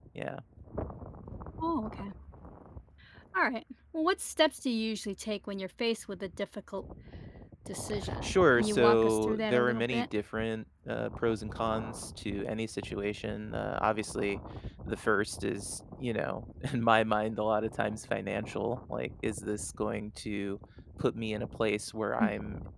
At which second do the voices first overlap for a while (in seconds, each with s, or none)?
8.2 s